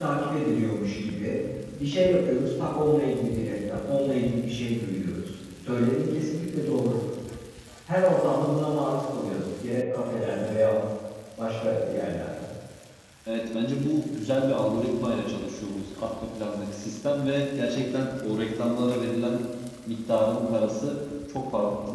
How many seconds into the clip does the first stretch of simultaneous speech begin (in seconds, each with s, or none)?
none